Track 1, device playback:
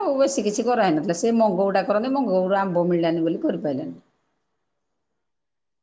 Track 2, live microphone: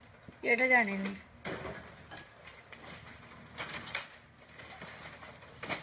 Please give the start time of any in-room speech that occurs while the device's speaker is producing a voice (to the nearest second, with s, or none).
0 s